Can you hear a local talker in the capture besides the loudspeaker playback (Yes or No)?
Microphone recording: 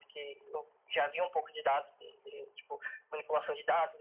No